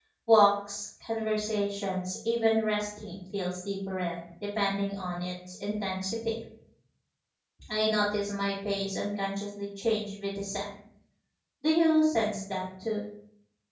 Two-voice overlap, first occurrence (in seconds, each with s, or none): none